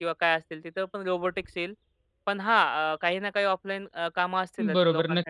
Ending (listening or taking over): taking over